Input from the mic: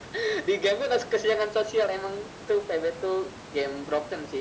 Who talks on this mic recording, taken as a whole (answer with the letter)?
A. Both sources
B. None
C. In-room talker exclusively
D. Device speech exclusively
D